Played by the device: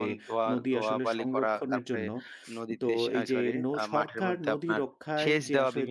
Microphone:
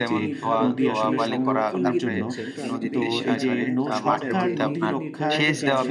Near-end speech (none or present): present